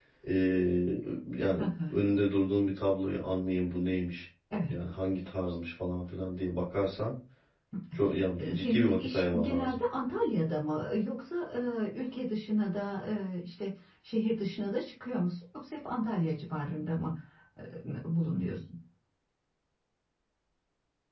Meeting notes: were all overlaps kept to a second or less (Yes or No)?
No